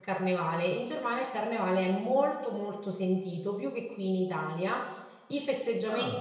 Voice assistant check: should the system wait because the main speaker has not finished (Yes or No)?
Yes